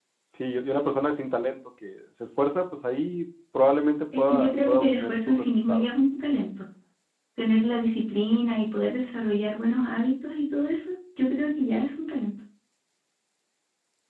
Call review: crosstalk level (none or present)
present